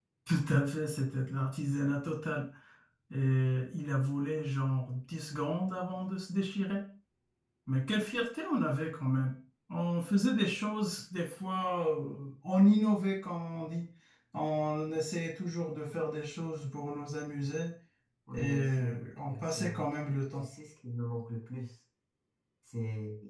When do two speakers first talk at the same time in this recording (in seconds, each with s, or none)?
18.3 s